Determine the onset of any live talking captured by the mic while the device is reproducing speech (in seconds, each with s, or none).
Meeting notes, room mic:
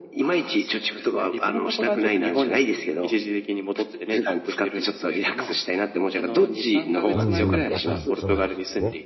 7.1 s